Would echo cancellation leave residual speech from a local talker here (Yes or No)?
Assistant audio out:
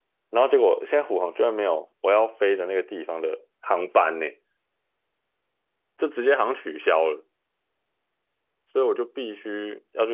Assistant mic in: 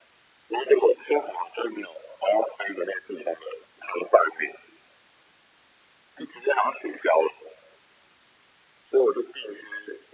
No